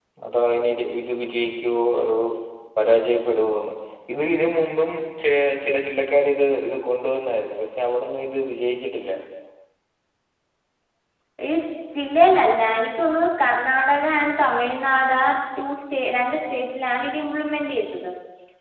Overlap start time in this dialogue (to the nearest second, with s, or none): none